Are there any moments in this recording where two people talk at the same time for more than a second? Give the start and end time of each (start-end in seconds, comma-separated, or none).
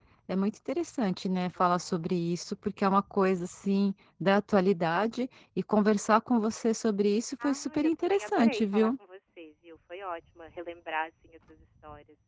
7.4-8.9